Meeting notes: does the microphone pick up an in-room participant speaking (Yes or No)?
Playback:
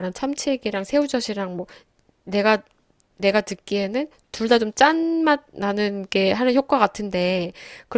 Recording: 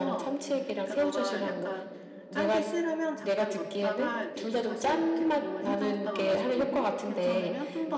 Yes